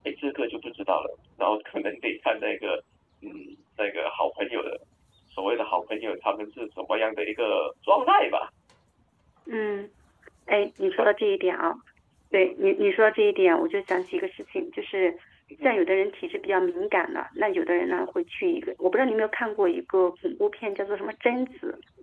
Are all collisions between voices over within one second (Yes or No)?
Yes